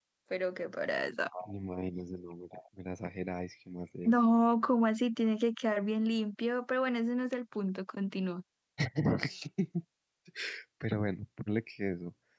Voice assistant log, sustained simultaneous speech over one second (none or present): none